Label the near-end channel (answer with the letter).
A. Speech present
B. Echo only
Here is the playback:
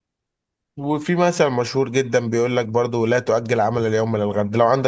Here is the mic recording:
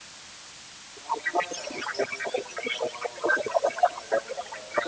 B